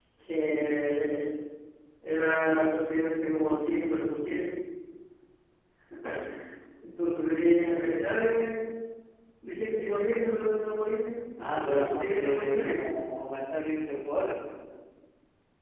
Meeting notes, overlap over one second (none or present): present